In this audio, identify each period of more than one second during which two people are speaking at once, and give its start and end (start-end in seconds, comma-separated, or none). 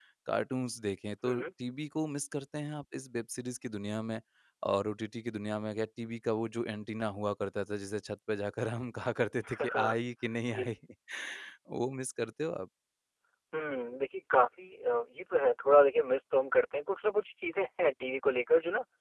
none